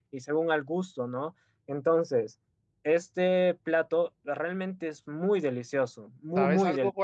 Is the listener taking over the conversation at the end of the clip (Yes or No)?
Yes